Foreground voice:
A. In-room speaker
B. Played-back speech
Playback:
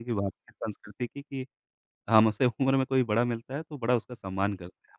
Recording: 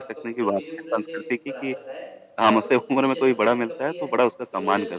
B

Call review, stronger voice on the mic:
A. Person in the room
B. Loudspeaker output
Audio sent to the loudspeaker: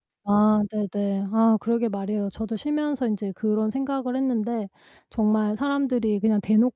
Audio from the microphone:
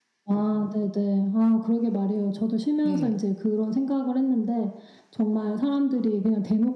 B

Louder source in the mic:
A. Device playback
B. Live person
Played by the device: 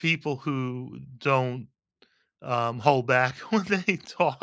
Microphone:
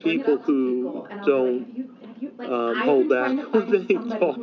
A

